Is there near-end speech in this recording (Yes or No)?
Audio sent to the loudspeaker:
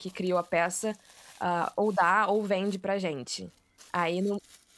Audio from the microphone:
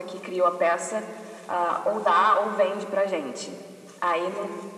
No